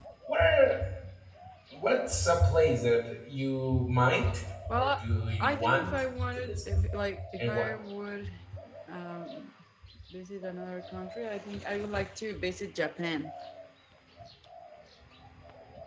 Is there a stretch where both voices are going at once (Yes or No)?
Yes